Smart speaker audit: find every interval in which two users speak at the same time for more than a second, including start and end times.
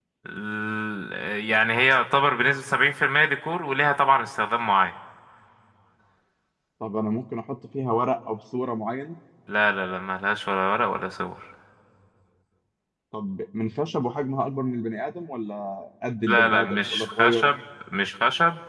16.3-17.5

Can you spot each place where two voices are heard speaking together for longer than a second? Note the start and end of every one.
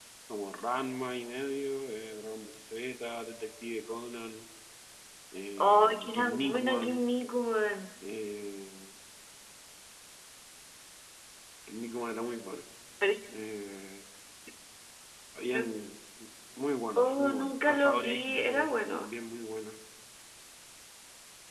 5.6-7.0, 17.0-19.1

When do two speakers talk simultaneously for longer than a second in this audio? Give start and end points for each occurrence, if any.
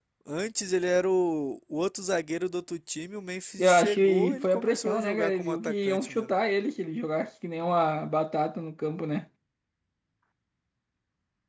3.6-6.3

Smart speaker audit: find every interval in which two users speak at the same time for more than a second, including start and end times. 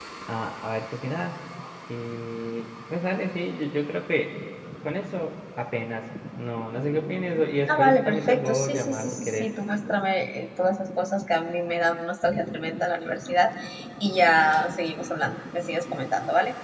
7.7-9.5

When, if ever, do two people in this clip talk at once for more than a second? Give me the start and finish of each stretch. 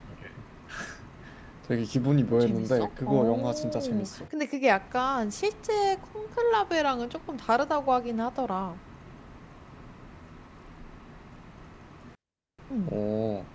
2.4-4.1

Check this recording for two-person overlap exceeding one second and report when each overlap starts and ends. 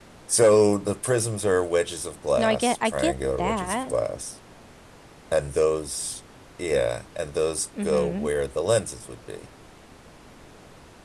2.4-3.9

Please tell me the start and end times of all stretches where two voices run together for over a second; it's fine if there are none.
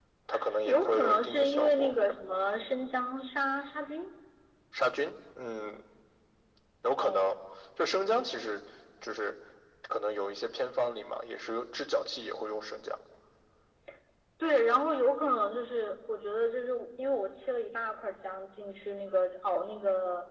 0.6-2.0

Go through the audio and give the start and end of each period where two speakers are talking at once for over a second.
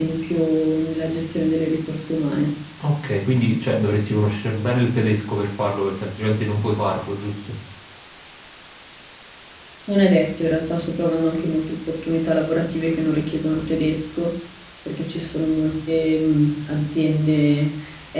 none

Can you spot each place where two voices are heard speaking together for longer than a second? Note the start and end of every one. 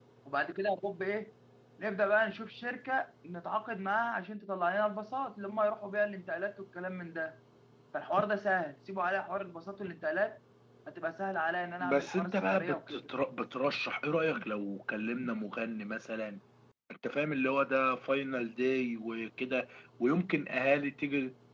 11.8-13.0

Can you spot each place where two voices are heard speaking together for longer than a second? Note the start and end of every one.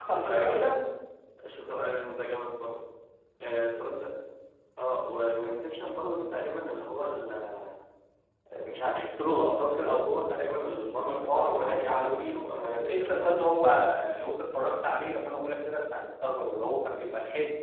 11.1-13.3

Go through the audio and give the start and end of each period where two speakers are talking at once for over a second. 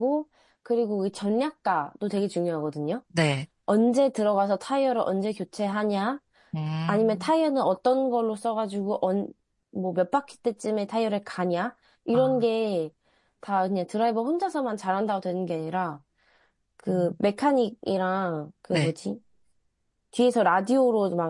none

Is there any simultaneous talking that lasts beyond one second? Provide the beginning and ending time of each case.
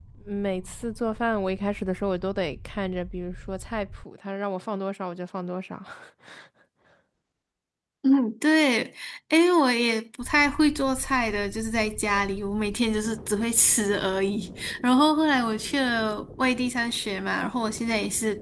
none

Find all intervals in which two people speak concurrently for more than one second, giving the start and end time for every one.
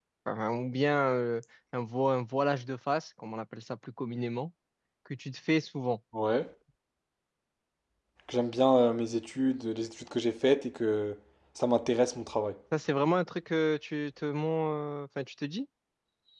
none

